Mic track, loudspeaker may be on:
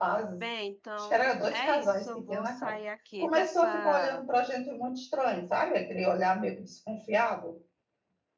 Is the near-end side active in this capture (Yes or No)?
Yes